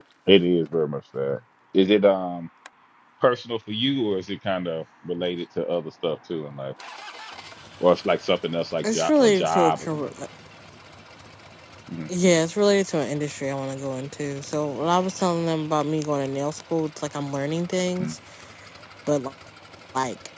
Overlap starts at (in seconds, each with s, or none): 8.8 s